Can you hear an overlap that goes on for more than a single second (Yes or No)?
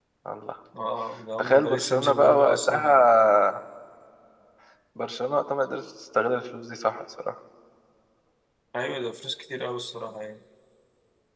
Yes